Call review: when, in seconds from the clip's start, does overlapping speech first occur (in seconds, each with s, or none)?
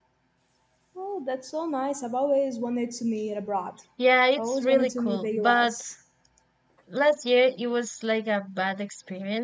4.4 s